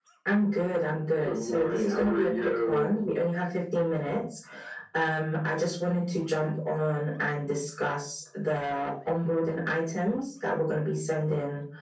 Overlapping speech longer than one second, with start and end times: 1.2-3.0

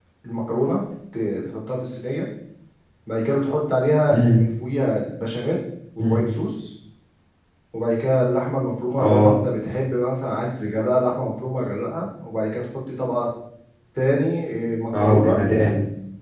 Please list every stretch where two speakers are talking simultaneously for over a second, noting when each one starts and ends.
none

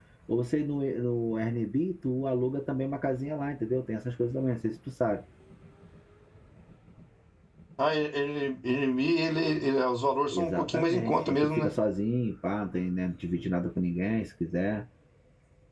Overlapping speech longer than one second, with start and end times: 10.3-11.7

